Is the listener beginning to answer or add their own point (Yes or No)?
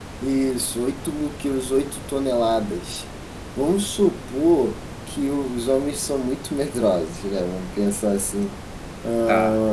No